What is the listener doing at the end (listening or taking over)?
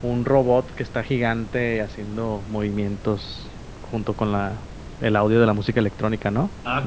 taking over